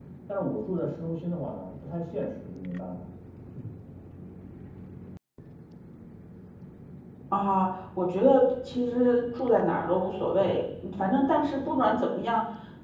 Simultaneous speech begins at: none

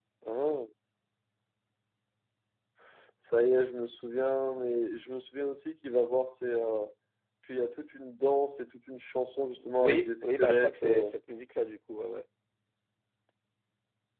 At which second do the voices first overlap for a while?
9.8 s

